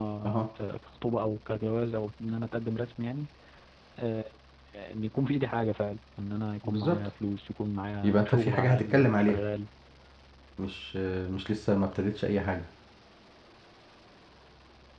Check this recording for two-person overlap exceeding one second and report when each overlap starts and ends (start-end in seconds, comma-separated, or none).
8.0-9.4